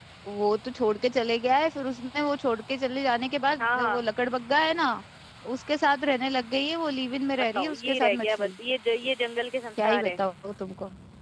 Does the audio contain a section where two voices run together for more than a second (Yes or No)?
Yes